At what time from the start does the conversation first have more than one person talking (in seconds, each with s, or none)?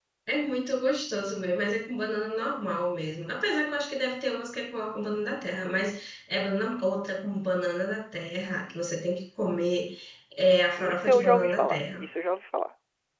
10.8 s